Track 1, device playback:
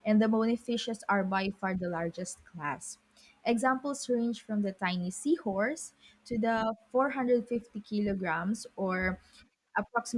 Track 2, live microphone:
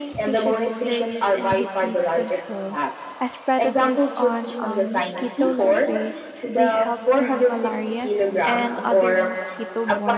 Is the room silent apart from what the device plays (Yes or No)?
No